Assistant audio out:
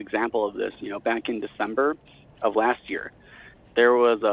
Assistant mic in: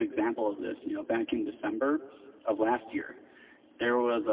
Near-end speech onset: none

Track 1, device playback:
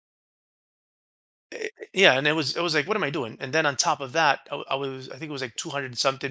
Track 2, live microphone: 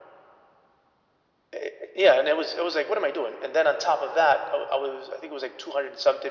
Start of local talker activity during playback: none

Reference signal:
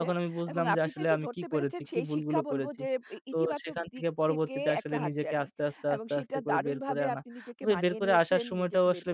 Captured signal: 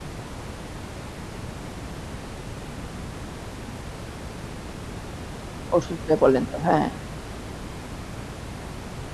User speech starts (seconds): 5.8 s

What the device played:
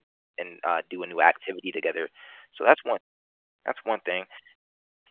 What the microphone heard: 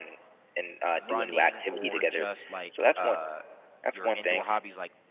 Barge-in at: 0.9 s

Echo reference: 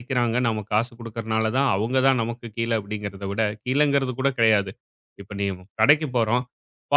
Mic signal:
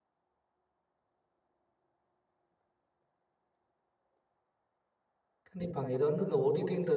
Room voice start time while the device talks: 5.5 s

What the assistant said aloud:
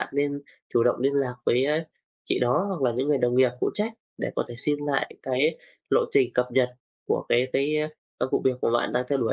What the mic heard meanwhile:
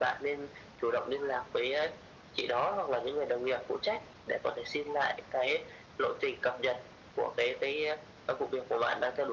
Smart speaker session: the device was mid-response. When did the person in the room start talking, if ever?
none

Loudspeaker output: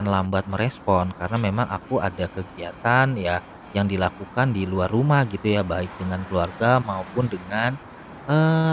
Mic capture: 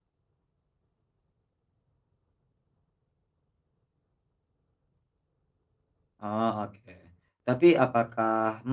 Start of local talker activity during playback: 6.2 s

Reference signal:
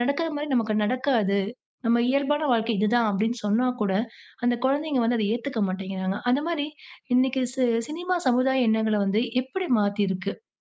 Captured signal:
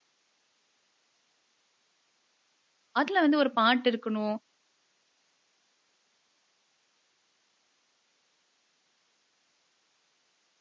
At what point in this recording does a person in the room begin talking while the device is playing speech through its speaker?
3.0 s

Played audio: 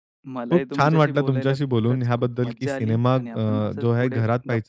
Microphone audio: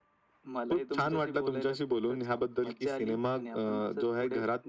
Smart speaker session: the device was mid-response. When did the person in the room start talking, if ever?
none

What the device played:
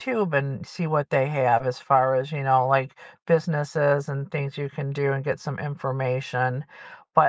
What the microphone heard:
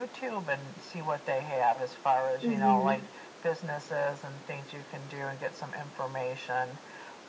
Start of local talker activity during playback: 2.4 s

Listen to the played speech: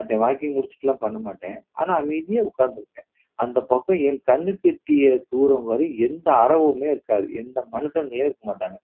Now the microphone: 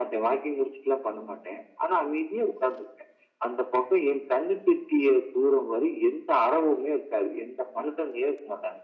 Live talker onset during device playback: none

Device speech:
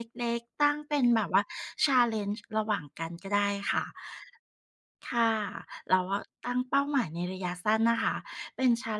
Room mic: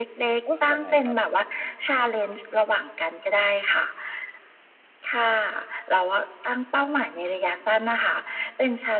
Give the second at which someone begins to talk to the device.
0.4 s

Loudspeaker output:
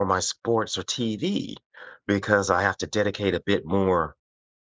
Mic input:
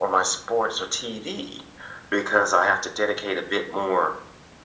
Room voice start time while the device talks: none

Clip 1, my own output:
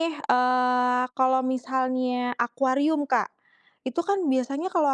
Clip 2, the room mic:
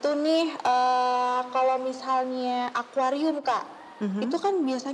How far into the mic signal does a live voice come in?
4.0 s

